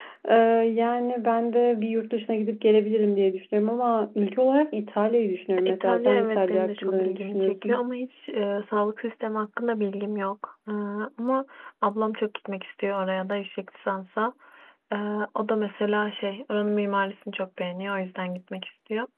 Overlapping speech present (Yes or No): Yes